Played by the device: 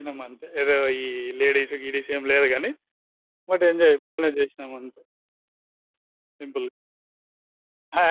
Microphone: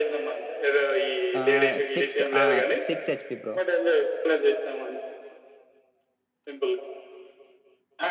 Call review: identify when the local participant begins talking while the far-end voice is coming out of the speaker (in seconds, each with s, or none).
1.4 s